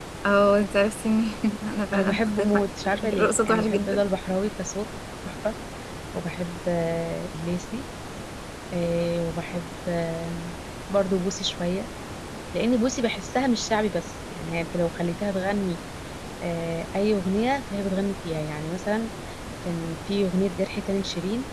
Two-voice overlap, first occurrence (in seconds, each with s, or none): 1.9 s